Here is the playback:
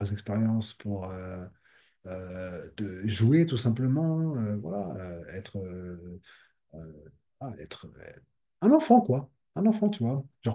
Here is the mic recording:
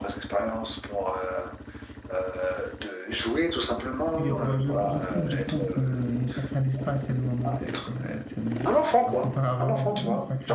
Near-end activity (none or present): present